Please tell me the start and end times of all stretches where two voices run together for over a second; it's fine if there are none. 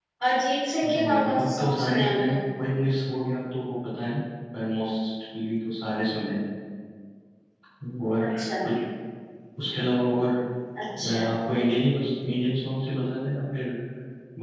1.1-2.4

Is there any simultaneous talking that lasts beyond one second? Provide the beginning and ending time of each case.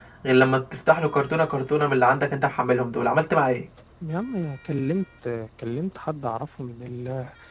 none

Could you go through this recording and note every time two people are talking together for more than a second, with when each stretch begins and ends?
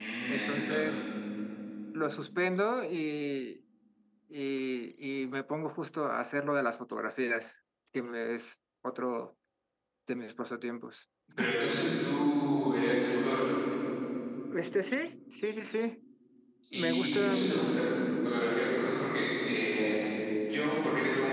16.7-17.9

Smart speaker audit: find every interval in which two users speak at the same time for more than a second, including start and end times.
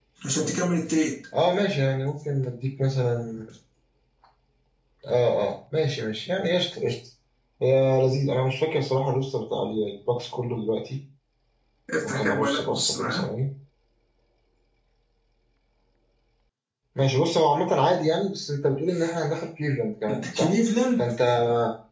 12.0-13.2

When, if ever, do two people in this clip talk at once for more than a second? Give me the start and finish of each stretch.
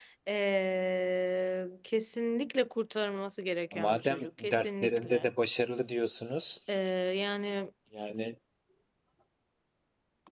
3.7-5.3

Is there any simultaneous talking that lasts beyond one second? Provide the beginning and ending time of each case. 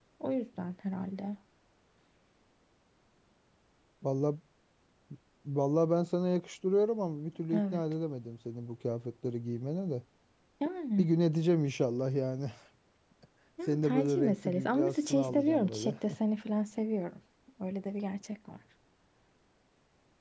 13.7-16.0

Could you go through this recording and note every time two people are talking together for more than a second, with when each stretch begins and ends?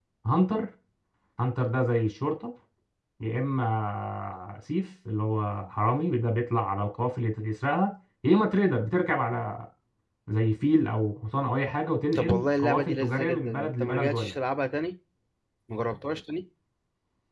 12.2-14.3

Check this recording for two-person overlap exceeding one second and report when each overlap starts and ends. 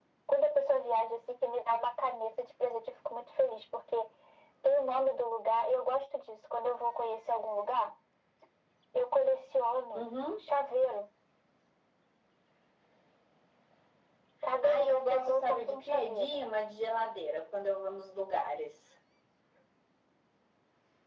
14.6-16.4

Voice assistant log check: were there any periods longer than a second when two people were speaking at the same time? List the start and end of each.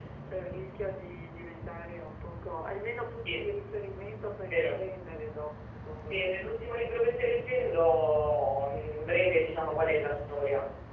none

